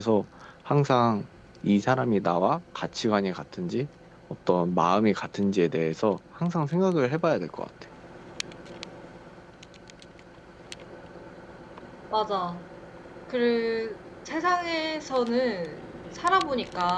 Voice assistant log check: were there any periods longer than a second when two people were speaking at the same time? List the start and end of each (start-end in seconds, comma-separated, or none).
none